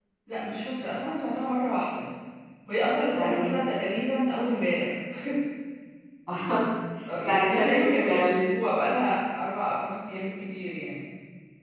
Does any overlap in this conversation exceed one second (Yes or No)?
Yes